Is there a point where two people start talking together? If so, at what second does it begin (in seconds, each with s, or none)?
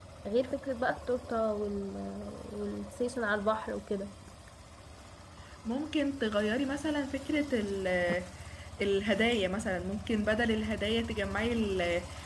none